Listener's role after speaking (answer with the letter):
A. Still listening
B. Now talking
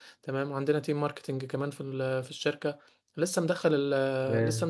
A